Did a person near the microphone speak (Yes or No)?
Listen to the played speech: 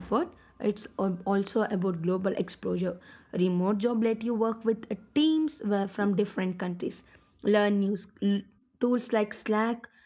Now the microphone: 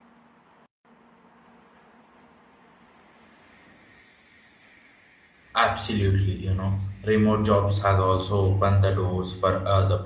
Yes